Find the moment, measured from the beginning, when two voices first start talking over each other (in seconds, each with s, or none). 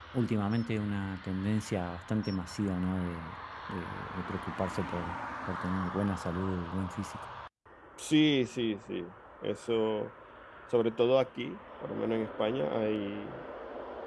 none